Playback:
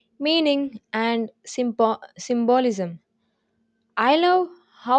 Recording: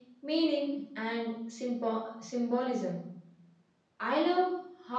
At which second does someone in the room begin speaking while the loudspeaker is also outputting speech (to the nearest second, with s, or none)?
none